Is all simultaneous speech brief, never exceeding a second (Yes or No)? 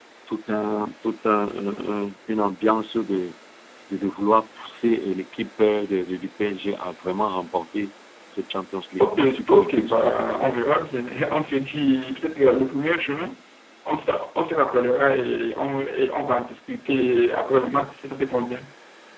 No